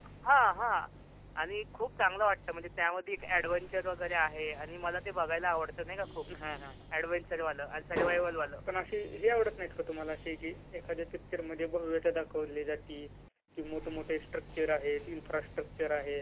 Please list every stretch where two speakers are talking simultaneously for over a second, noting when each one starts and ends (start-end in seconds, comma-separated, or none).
none